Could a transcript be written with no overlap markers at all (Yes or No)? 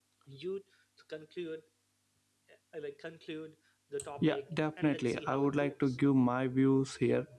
No